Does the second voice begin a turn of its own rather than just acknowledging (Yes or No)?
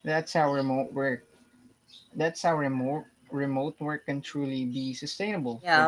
Yes